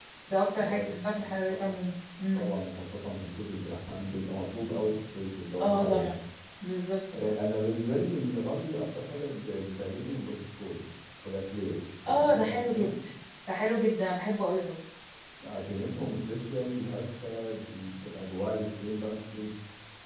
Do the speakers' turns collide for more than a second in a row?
Yes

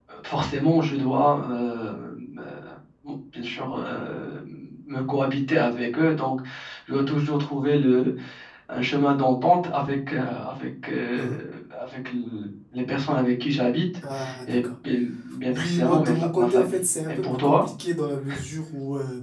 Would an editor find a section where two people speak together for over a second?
Yes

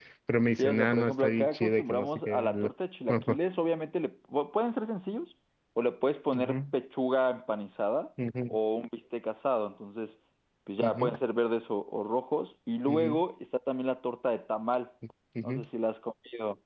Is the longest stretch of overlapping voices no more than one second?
No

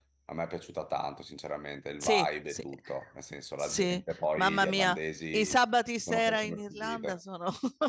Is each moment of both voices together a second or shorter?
No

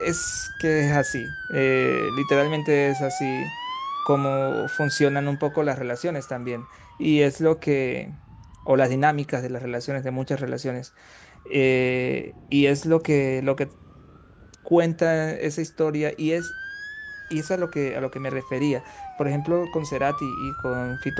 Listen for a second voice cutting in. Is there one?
No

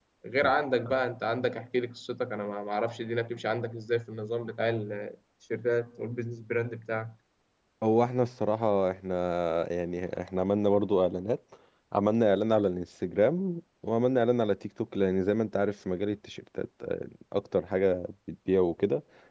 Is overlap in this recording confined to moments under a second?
Yes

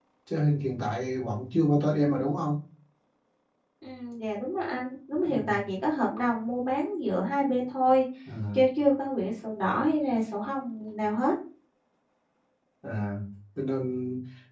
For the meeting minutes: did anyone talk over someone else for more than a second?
No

